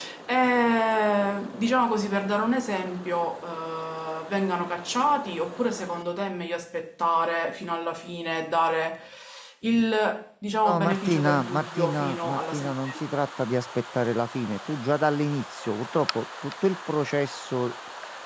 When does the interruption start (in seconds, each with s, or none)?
10.5 s